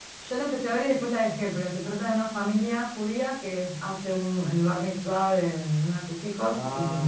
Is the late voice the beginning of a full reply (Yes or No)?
No